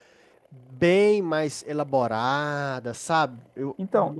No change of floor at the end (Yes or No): No